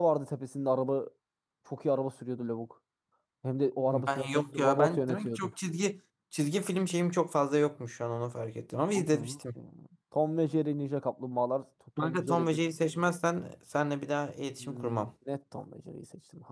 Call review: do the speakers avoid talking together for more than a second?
No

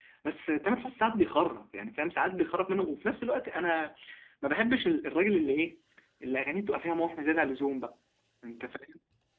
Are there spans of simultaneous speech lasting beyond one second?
No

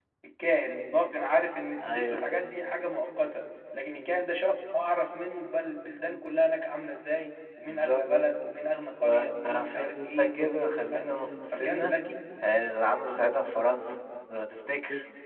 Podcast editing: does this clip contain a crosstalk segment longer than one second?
Yes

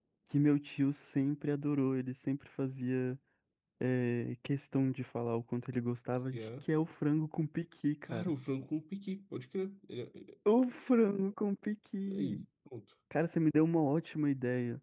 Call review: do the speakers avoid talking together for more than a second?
Yes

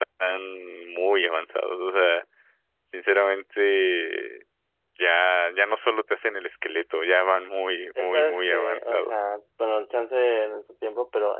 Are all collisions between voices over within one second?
No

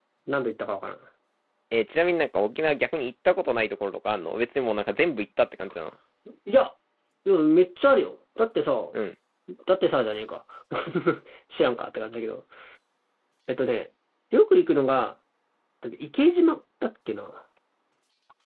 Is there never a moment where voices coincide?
Yes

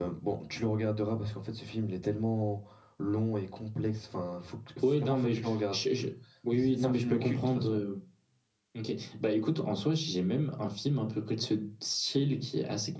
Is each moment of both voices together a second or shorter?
No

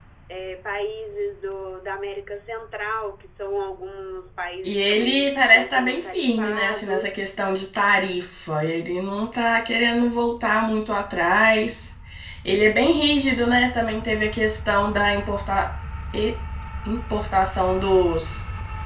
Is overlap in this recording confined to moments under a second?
No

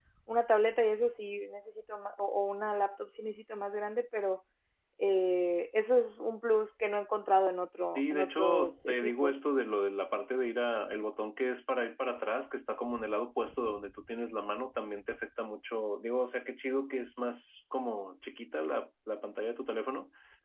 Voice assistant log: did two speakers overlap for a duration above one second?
Yes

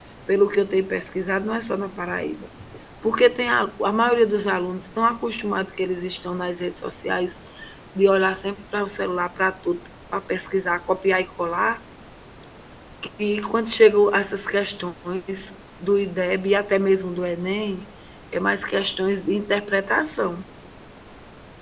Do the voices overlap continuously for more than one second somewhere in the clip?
No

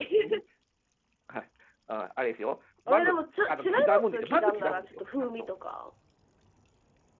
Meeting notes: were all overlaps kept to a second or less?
No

